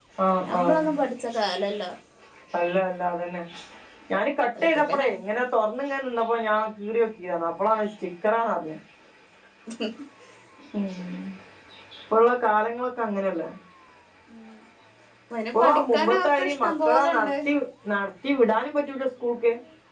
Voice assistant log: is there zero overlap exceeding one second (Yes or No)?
No